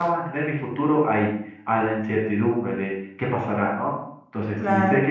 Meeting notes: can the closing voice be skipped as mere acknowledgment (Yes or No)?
Yes